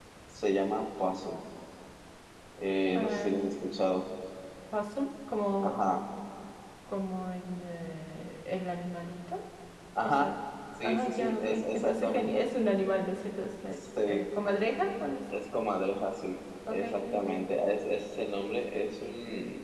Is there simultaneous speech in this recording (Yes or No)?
Yes